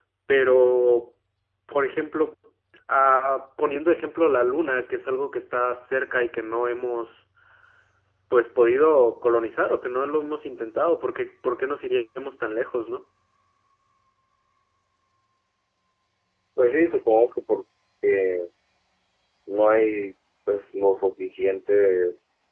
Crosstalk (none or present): none